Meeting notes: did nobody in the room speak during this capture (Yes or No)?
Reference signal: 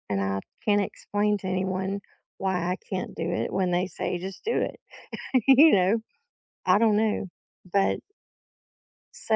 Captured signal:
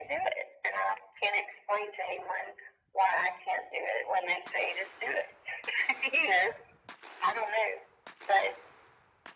Yes